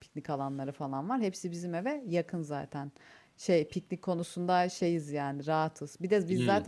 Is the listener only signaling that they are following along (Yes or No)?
Yes